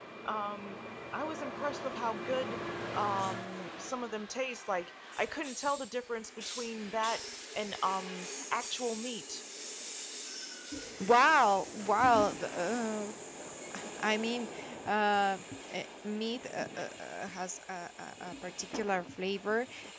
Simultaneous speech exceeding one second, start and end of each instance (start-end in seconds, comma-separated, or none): none